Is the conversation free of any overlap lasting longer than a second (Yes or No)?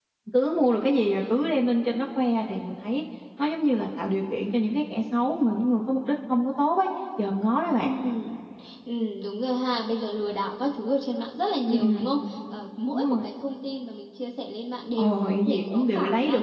No